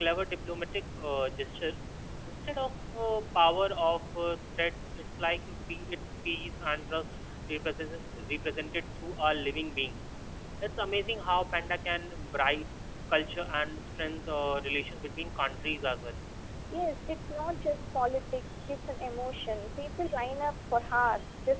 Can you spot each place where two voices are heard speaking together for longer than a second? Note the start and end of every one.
none

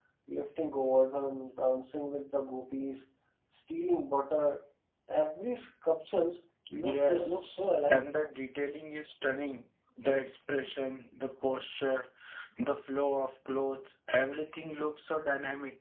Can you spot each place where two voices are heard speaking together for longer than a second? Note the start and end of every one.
6.8-8.1

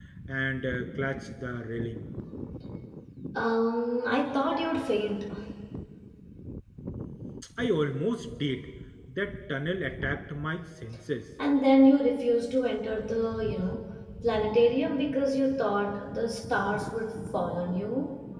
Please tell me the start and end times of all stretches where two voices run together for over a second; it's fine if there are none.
none

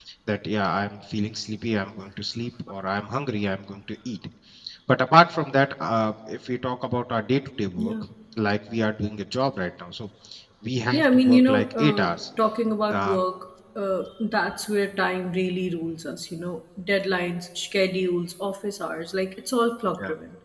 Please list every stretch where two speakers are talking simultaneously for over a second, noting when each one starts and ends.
10.9-12.2

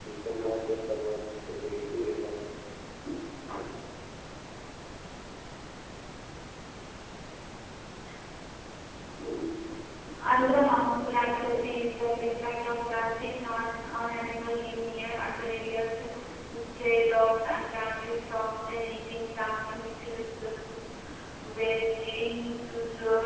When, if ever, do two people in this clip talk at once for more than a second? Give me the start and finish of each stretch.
none

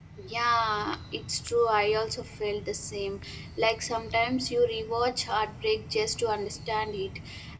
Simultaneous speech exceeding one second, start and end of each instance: none

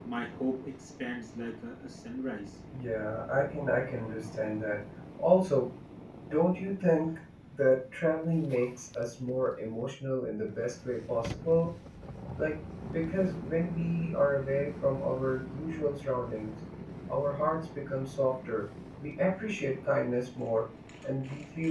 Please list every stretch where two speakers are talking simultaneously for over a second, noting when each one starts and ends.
none

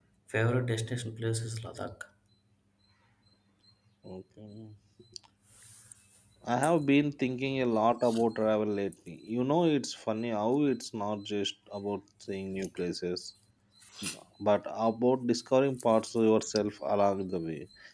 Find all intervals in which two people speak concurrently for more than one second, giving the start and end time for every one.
none

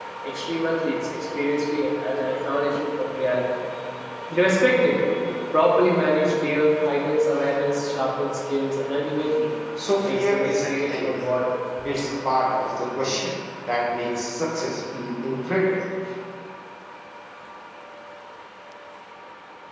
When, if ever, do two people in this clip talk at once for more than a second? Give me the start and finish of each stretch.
10.1-11.3

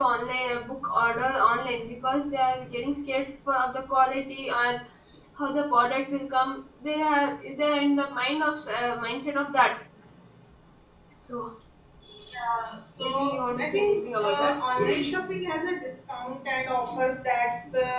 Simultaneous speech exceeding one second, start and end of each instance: 13.0-14.6

